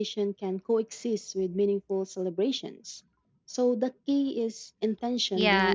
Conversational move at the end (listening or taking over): taking over